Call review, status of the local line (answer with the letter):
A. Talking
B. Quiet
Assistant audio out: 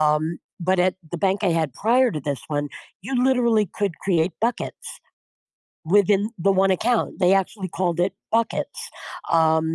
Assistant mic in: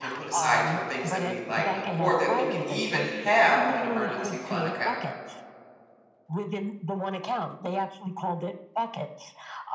A